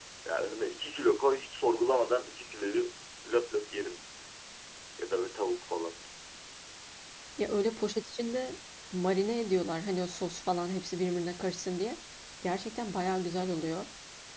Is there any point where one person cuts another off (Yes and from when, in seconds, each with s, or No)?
No